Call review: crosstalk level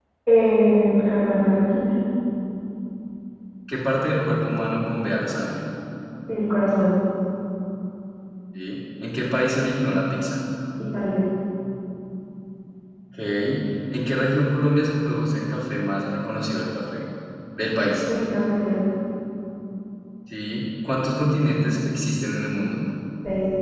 none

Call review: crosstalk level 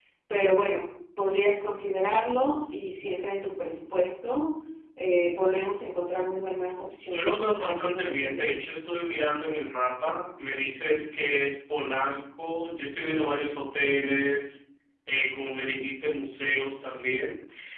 present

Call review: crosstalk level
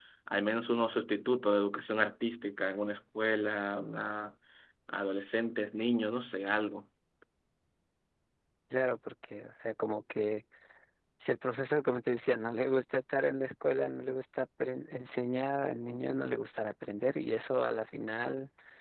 none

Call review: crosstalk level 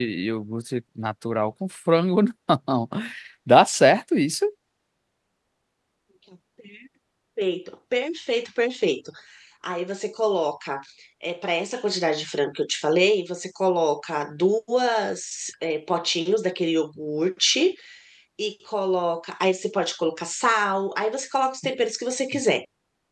none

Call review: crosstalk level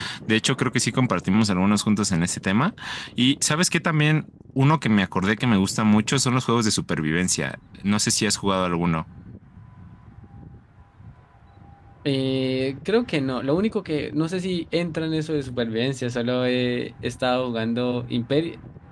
none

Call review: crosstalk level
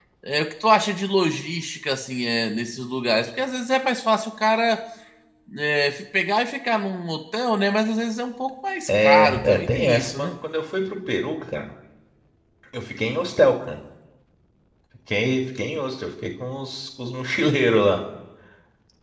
present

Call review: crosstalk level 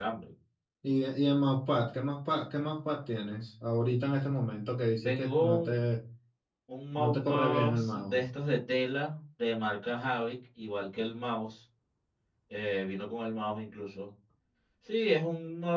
present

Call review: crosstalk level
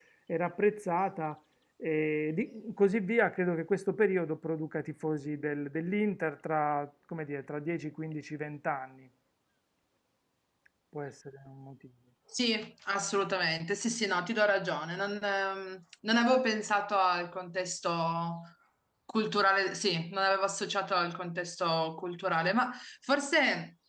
none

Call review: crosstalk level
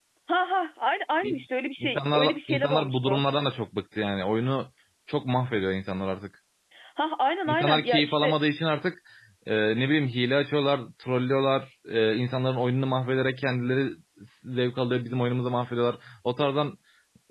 present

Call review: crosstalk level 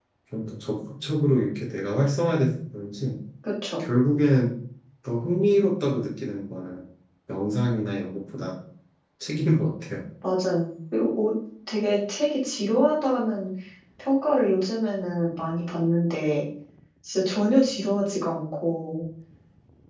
none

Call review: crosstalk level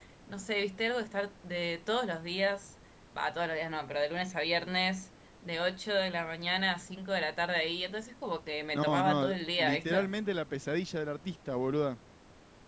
present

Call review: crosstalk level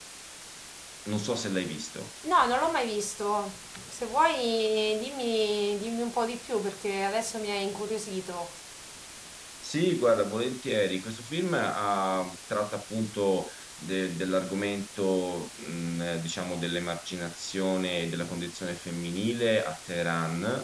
none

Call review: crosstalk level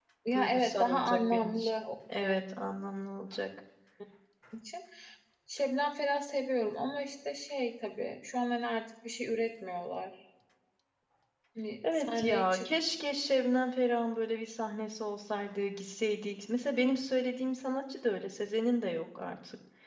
present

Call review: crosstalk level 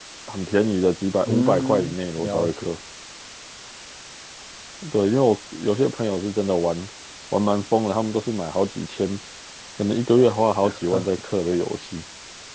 present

